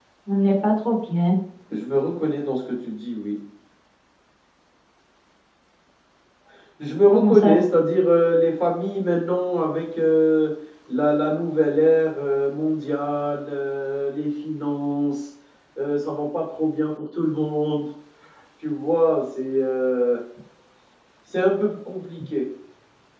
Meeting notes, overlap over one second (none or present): none